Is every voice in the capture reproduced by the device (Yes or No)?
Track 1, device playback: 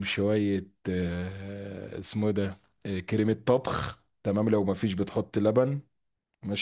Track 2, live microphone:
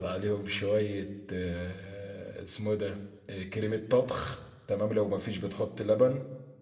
Yes